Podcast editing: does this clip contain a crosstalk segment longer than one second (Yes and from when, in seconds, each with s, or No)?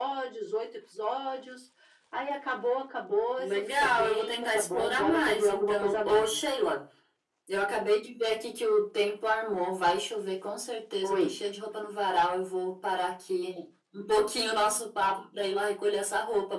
Yes, from 3.4 s